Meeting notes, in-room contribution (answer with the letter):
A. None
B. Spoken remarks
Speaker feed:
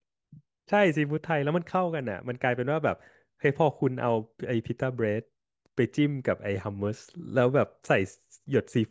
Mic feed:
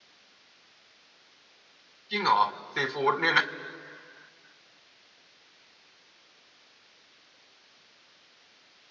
B